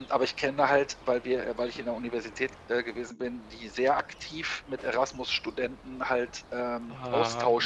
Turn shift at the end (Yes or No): No